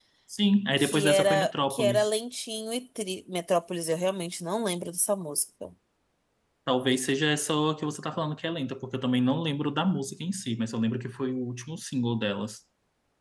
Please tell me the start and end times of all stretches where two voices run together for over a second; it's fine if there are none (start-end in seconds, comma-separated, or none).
0.8-2.1